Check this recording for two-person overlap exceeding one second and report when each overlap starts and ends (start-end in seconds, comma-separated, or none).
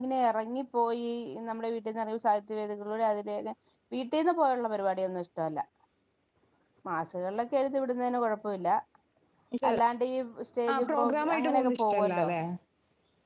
10.7-12.3